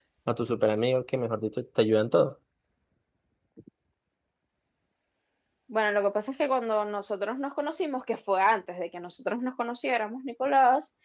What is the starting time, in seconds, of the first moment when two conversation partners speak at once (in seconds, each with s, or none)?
none